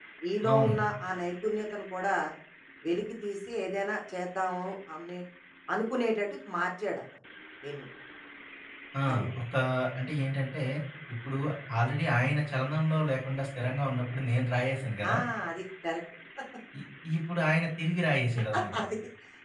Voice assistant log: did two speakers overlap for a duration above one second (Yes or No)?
No